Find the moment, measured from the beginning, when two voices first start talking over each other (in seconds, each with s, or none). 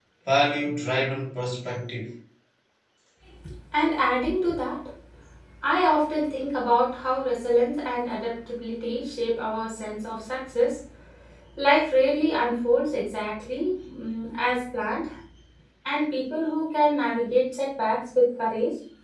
none